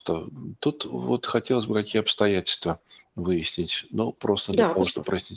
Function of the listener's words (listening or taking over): listening